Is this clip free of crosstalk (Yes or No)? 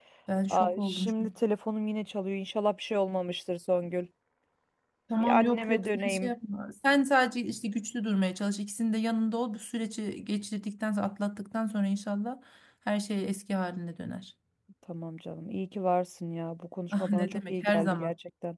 No